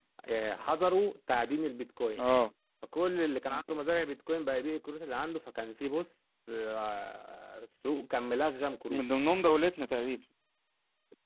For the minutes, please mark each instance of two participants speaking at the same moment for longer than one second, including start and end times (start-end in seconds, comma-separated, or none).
none